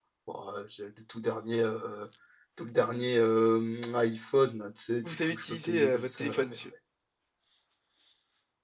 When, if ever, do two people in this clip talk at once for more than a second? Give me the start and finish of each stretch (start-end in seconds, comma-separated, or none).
5.0-6.6